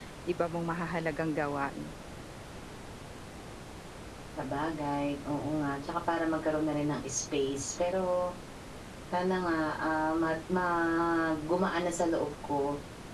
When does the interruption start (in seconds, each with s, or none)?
none